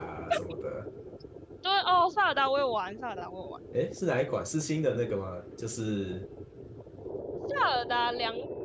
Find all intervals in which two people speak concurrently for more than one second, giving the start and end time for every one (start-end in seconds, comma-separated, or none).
none